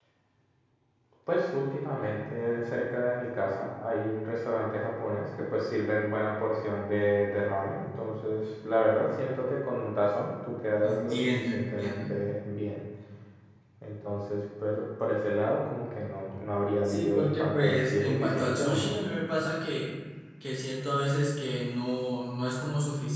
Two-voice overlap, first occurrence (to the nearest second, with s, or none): 11 s